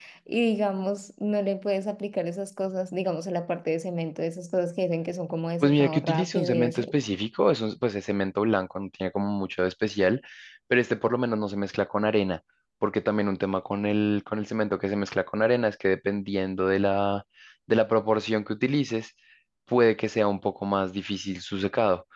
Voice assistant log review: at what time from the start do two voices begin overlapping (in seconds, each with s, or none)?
5.6 s